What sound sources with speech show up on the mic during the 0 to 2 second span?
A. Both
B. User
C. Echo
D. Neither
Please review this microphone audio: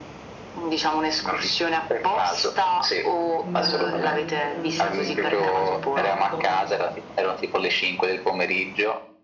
C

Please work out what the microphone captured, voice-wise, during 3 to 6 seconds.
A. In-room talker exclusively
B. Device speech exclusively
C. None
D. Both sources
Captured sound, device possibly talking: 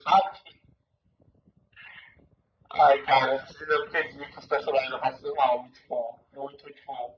B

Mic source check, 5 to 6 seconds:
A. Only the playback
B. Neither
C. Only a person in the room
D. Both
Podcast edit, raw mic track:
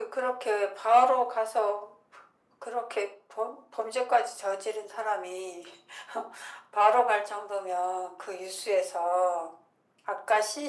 A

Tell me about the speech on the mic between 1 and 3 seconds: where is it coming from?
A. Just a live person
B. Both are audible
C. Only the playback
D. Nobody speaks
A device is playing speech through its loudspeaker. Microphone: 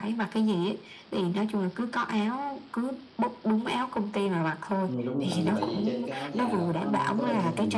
C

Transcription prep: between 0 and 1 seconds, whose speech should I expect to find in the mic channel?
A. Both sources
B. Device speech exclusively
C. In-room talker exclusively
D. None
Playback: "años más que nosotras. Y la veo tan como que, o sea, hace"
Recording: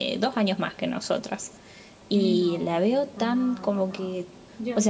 B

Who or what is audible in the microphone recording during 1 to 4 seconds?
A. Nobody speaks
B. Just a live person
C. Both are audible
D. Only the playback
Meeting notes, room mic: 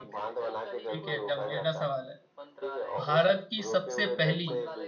C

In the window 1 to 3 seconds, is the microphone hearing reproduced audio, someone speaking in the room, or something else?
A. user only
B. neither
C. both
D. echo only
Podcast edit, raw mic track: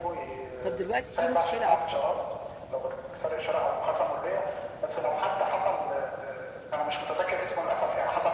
C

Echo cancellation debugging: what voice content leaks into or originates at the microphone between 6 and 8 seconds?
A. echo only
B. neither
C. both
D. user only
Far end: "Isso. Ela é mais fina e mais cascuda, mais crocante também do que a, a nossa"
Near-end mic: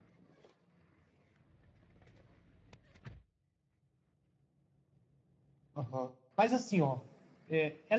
D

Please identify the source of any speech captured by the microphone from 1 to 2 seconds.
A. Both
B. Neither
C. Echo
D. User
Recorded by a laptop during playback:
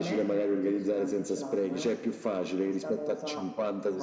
C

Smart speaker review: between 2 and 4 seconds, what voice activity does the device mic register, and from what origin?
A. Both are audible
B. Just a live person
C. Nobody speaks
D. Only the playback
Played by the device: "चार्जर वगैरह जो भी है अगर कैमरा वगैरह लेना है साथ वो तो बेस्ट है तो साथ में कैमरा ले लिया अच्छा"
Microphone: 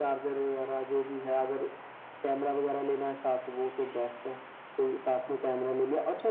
D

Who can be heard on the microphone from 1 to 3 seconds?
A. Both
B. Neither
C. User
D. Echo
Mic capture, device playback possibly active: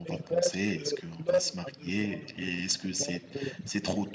A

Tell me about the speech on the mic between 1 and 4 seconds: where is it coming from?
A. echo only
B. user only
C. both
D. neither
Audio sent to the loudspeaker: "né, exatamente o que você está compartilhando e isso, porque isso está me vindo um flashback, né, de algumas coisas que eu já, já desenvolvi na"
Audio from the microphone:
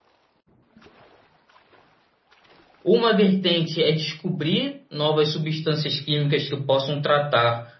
B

